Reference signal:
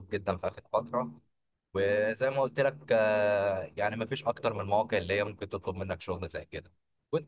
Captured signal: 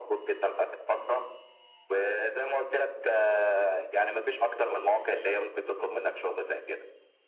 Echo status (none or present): present